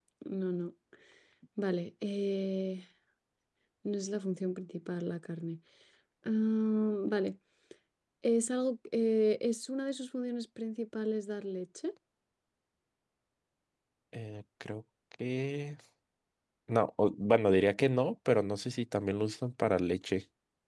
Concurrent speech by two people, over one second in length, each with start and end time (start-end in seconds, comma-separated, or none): none